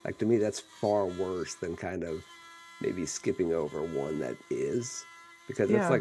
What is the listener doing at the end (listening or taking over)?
listening